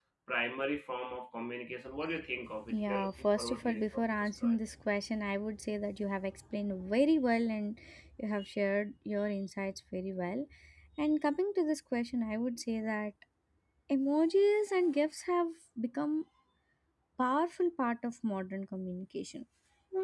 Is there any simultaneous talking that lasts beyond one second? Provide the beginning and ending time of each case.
2.7-4.6

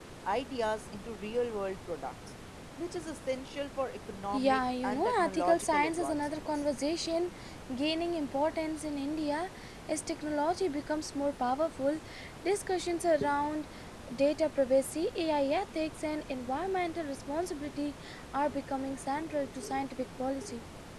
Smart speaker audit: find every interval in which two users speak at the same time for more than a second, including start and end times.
4.3-6.5

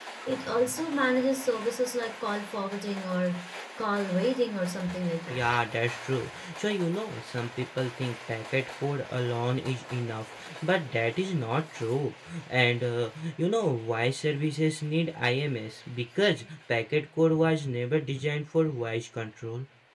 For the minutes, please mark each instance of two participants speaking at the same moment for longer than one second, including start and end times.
none

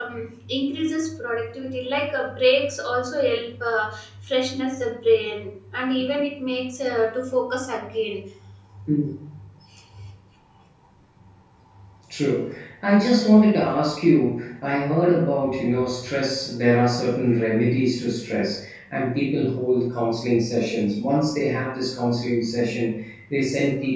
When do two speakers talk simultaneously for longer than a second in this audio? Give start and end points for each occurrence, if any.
none

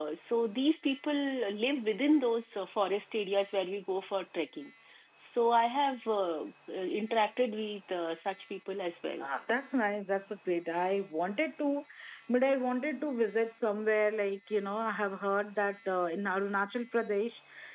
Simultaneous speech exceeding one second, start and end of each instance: none

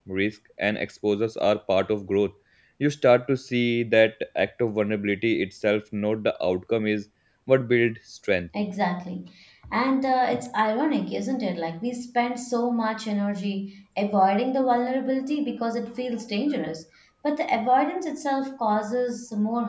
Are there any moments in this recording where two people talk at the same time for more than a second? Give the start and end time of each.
none

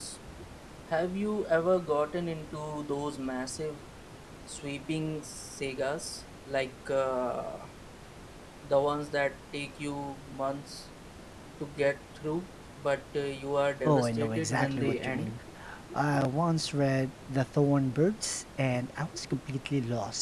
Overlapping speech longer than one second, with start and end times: 13.8-15.3

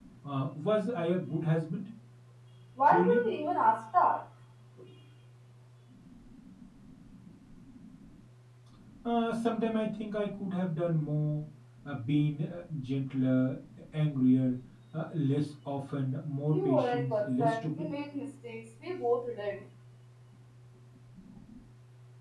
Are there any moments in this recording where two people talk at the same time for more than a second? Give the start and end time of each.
16.5-17.9

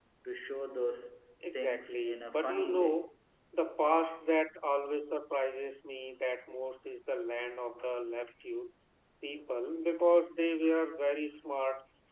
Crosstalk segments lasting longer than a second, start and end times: 1.5-3.1

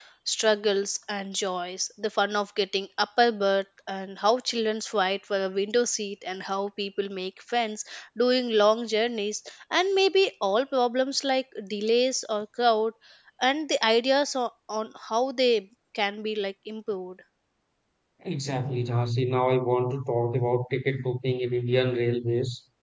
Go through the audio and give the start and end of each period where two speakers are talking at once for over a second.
none

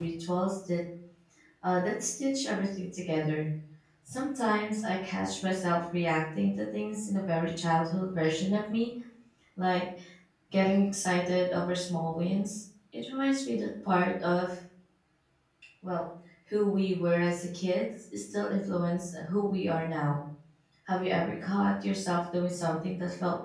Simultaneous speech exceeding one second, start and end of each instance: none

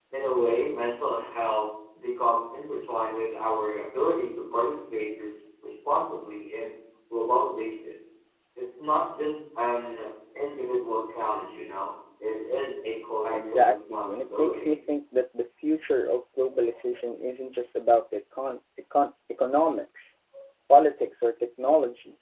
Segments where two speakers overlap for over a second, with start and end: 13.3-14.7

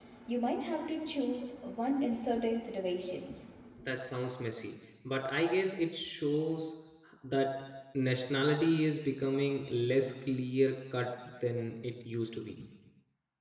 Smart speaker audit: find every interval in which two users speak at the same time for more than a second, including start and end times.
none

